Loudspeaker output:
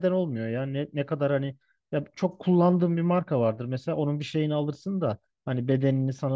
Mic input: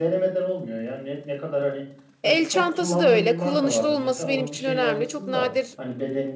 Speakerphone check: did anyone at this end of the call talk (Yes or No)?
Yes